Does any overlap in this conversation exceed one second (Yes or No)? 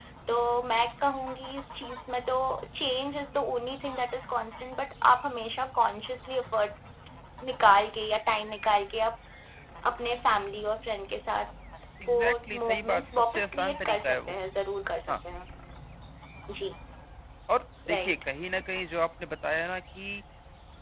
Yes